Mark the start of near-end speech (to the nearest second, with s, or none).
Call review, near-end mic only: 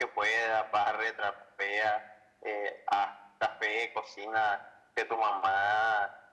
none